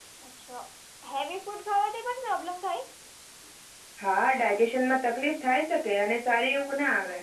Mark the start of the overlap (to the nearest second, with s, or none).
none